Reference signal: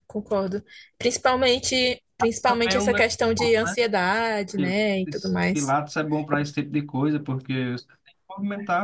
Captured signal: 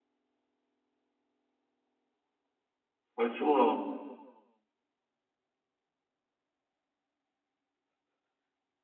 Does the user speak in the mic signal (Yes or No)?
Yes